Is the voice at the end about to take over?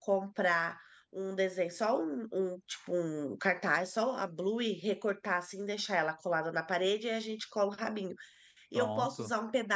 No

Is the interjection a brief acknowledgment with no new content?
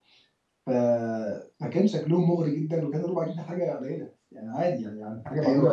Yes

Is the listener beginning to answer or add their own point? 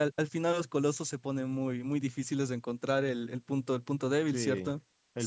Yes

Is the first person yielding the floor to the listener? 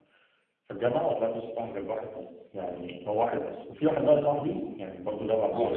Yes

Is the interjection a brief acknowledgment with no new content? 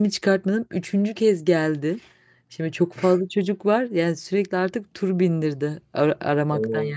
Yes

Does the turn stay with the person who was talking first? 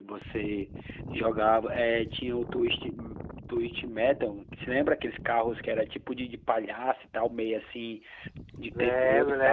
No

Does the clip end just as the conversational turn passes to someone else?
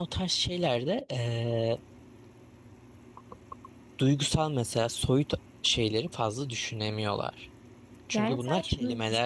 Yes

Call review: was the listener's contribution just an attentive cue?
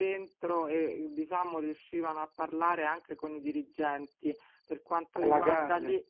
Yes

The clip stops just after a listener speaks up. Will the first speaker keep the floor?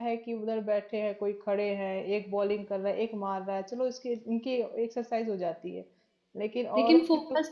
No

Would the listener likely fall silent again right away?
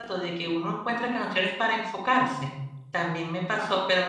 Yes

